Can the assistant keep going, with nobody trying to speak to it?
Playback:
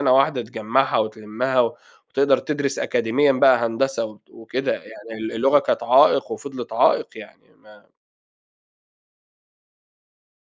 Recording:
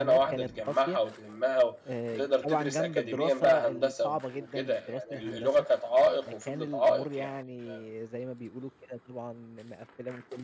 No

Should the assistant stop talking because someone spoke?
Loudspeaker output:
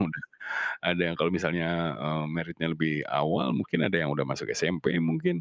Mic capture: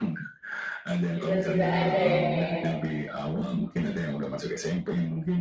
Yes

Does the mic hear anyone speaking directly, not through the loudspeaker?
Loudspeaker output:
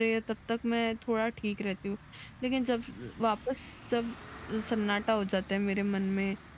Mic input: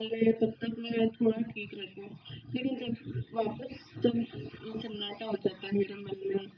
No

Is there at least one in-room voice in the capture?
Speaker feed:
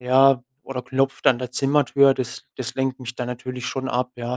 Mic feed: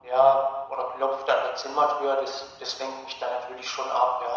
No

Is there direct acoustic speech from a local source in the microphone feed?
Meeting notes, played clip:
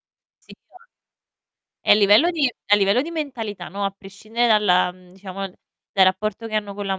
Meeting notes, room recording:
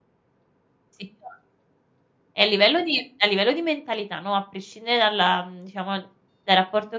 No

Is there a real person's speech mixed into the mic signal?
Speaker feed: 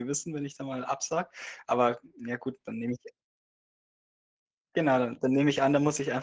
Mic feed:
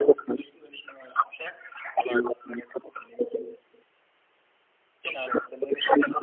No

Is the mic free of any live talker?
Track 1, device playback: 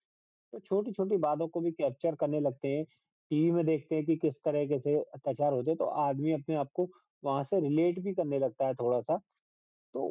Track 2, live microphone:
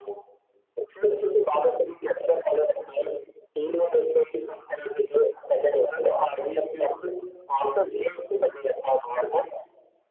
Yes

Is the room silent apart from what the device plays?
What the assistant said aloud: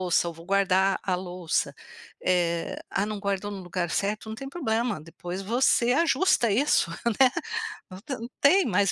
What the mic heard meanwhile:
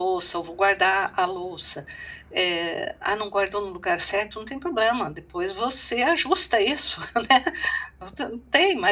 Yes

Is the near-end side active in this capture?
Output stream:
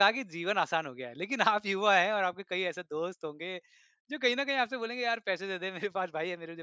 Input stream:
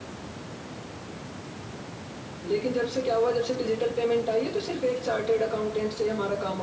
Yes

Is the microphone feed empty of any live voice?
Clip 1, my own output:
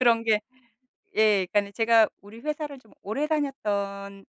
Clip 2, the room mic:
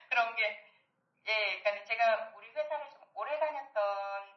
Yes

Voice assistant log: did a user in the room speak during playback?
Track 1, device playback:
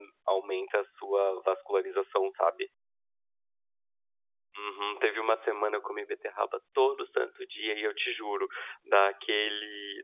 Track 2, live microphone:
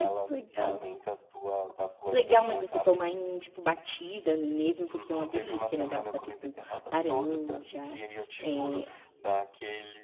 Yes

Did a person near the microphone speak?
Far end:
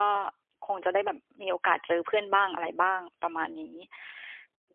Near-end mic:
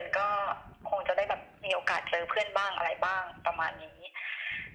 No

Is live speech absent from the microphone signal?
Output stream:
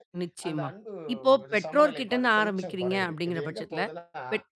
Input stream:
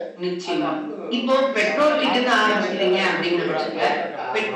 No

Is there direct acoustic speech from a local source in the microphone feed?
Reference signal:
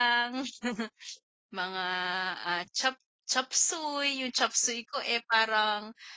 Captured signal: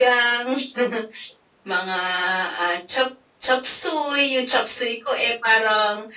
No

